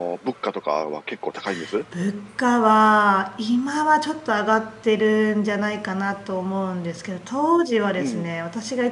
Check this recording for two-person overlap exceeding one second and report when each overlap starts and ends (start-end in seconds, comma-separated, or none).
none